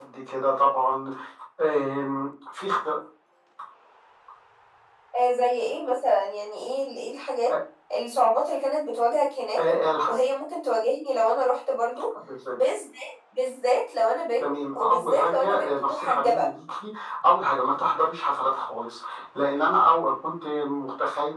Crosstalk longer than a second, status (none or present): present